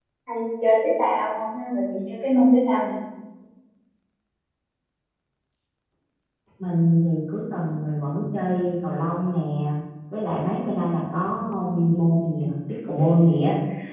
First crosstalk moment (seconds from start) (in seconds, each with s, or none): none